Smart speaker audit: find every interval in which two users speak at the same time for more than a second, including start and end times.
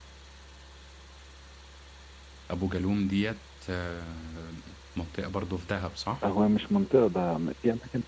none

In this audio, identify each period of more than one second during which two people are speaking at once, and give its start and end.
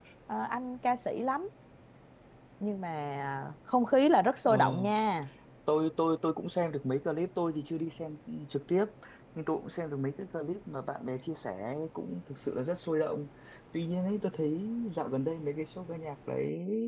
none

